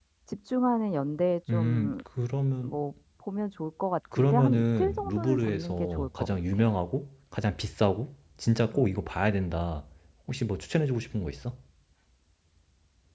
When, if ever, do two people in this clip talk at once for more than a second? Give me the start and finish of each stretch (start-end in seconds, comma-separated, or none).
4.1-6.6